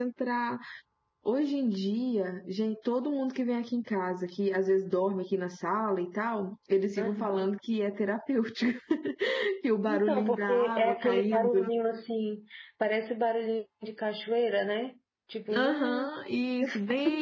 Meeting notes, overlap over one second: present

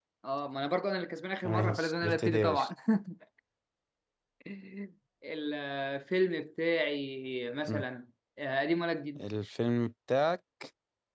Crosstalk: present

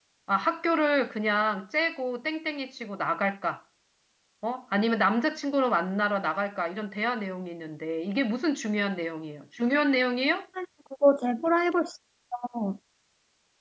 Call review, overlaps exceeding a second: none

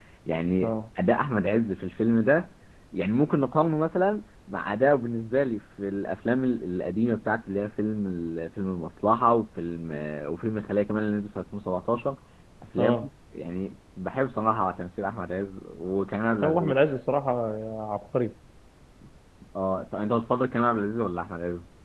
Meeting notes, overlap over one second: none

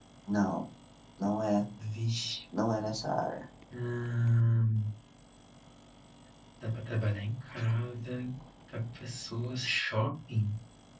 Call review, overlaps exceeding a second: none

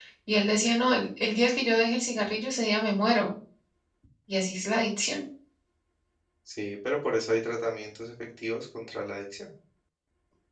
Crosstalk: none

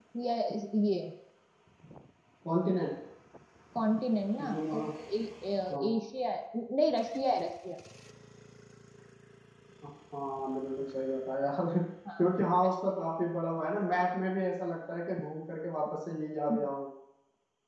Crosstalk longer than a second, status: none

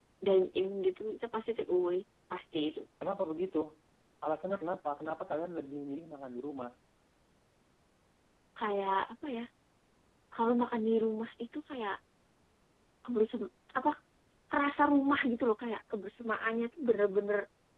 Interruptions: none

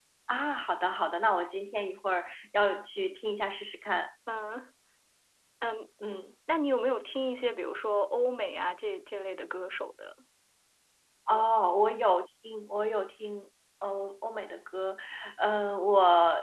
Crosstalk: none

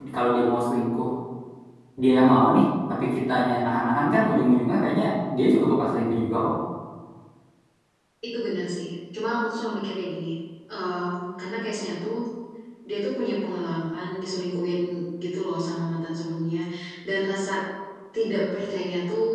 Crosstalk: none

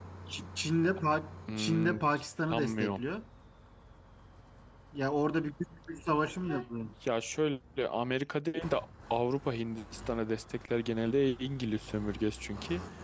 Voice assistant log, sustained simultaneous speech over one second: none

